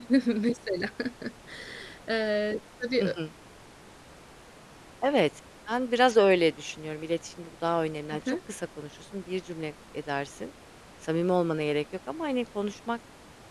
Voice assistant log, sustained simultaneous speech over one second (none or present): none